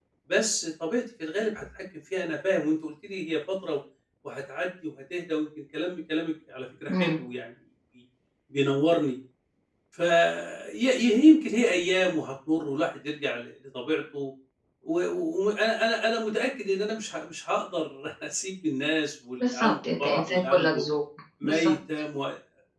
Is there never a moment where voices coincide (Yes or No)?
No